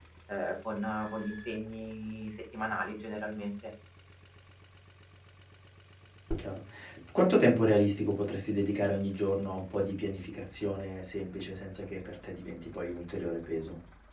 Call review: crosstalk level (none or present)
none